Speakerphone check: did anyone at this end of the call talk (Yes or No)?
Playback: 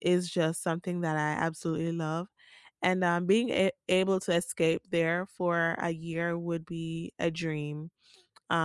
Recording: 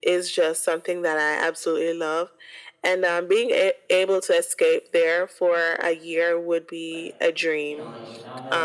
Yes